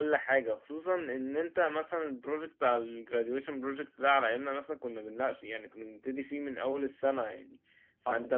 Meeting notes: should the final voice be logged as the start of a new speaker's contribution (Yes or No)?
No